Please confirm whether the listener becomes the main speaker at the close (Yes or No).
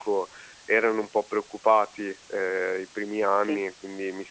No